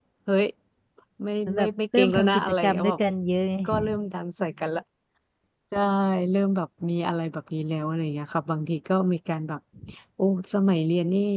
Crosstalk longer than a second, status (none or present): present